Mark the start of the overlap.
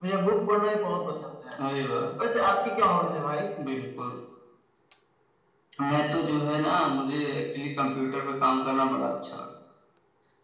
none

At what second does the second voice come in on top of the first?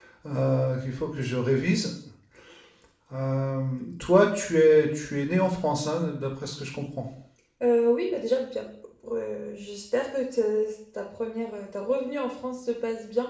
none

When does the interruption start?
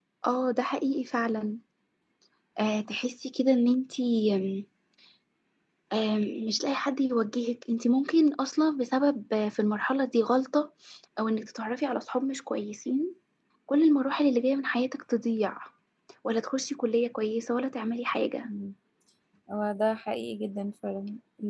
none

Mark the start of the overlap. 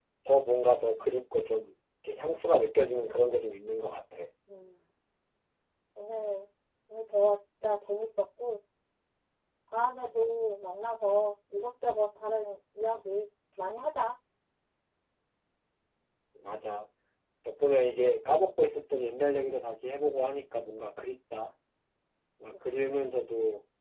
none

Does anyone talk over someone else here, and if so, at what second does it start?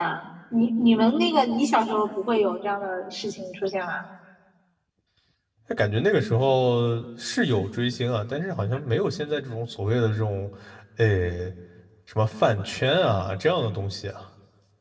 none

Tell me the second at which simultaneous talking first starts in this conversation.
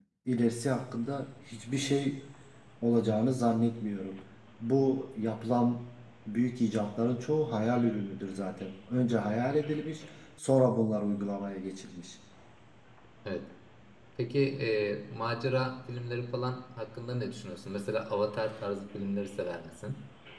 none

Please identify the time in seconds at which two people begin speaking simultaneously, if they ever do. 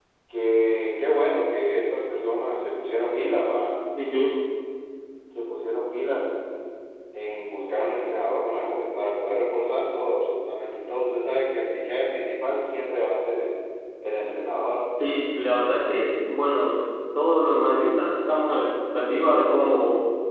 none

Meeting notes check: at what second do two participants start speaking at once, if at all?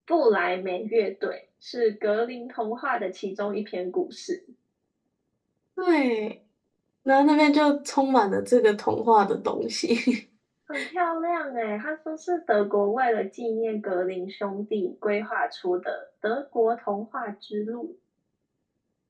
none

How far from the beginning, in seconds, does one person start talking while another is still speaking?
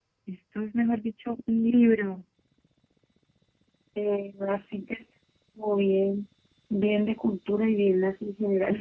none

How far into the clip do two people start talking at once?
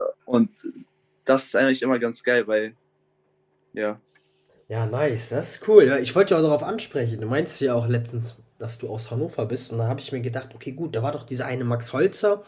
none

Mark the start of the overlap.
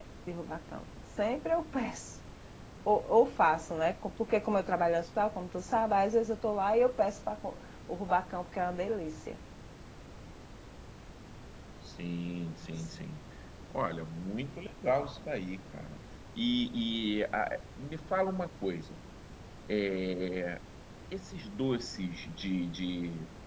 none

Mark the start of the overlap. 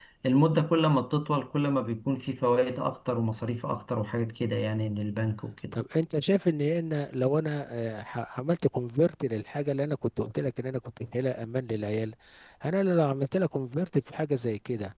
none

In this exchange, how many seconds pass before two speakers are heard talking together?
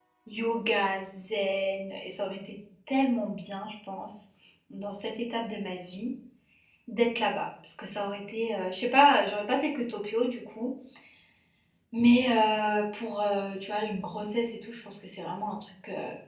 none

